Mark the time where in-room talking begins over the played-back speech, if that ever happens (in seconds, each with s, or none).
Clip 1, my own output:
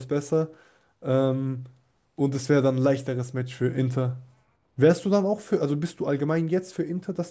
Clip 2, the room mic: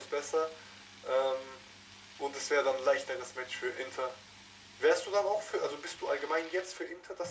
none